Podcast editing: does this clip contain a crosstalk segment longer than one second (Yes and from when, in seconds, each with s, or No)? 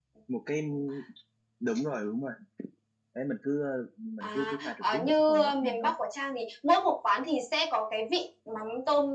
Yes, from 4.2 s